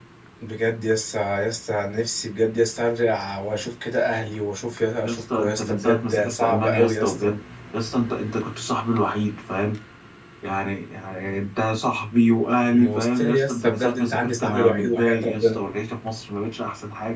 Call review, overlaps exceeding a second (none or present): present